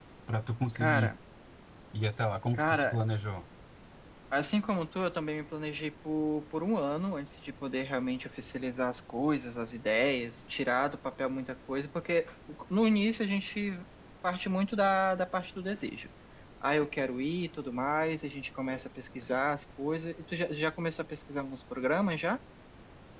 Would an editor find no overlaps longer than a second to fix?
Yes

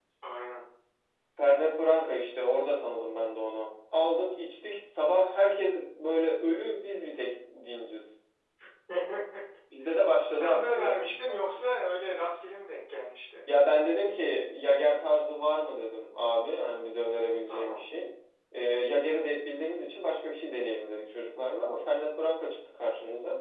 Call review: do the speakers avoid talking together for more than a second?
No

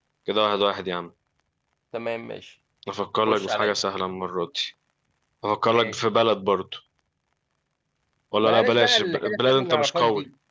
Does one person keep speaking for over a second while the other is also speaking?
Yes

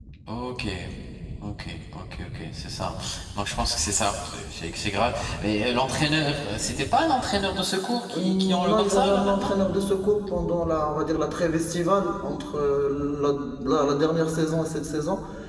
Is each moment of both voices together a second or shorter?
No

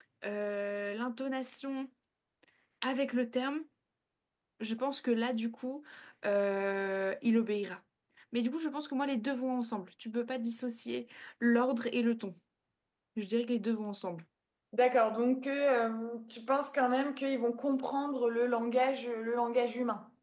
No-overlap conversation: Yes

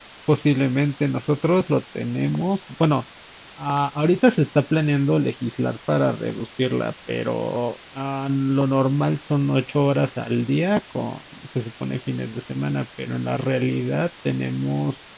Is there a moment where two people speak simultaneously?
No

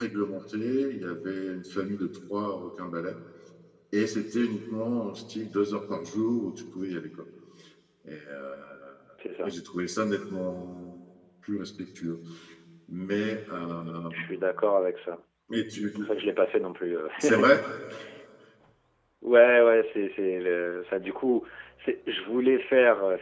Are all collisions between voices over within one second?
Yes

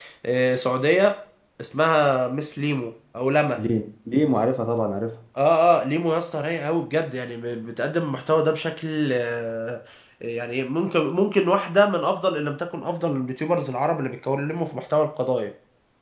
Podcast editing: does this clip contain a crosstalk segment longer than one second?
No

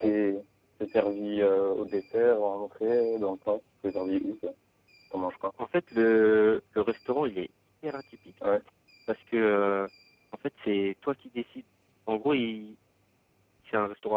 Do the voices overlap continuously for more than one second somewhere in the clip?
No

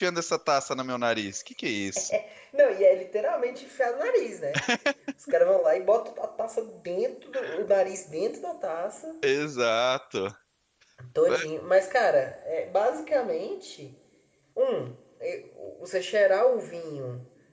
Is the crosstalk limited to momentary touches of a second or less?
Yes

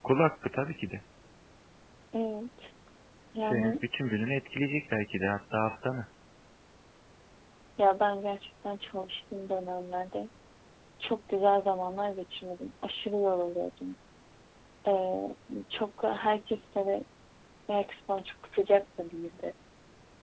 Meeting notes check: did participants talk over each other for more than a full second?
No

